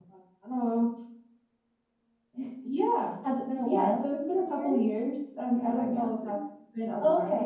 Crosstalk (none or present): present